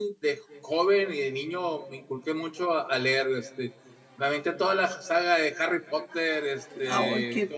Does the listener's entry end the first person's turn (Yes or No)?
No